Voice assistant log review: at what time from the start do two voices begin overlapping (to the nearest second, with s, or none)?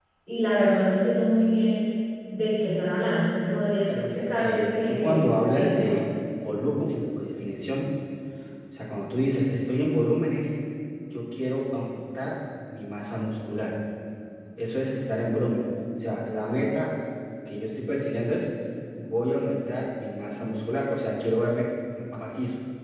4 s